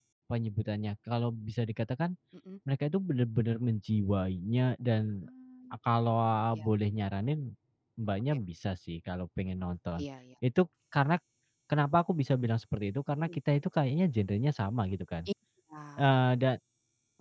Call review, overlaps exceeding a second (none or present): none